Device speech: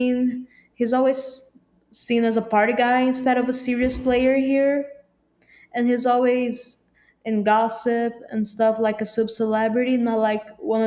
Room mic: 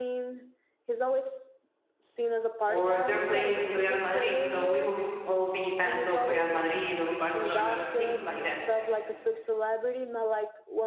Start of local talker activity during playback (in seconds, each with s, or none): 2.7 s